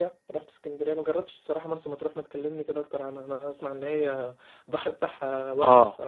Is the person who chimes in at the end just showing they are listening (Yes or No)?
No